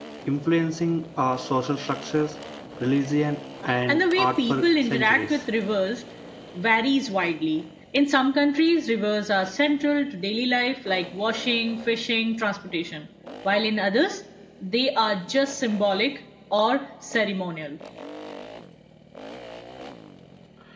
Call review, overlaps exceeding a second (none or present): present